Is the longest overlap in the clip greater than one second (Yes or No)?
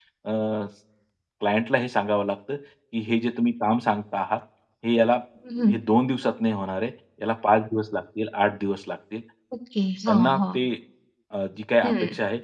No